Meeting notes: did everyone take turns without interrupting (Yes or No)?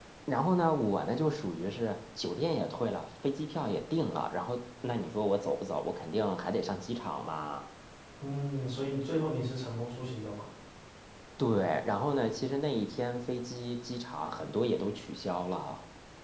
Yes